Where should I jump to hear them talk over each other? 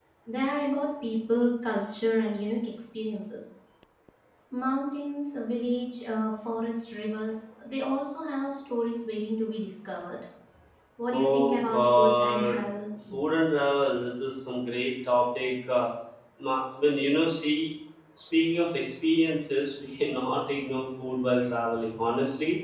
11.1 s

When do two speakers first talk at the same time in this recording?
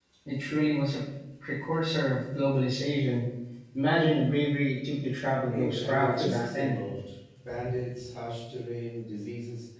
5.5 s

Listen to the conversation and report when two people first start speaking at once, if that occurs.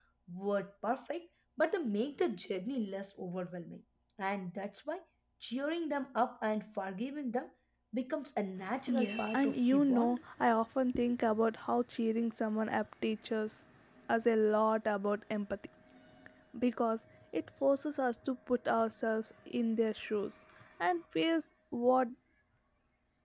8.9 s

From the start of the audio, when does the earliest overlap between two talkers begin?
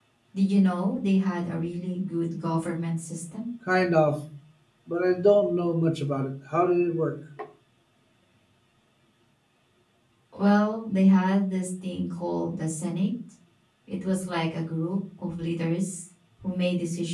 none

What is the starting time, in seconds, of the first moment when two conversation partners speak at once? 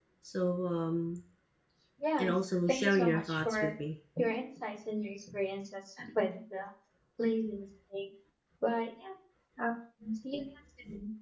2.2 s

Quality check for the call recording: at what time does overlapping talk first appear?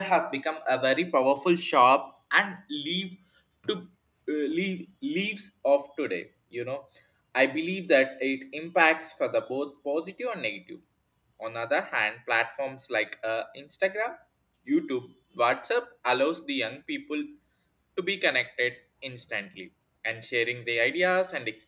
none

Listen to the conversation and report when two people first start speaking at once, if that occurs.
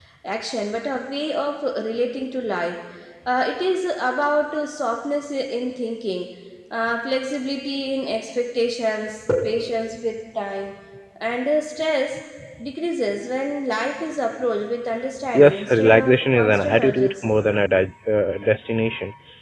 15.3 s

